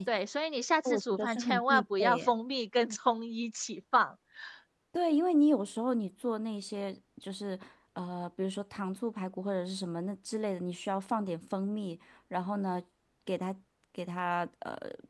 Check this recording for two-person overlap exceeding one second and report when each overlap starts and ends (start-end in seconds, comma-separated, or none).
0.8-2.3